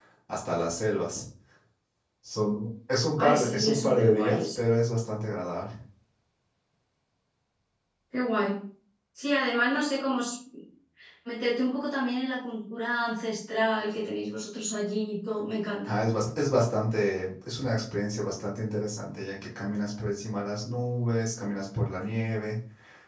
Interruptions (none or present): present